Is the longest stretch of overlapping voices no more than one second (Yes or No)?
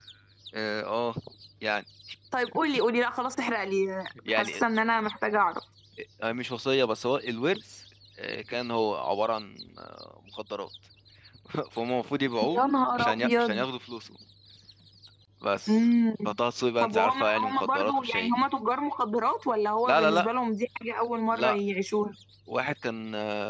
No